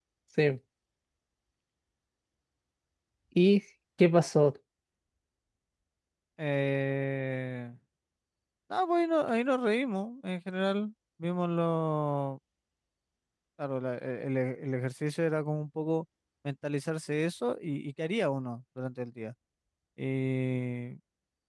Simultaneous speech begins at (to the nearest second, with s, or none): none